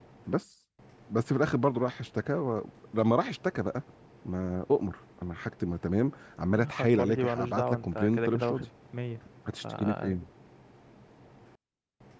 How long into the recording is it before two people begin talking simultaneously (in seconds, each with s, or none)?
6.8 s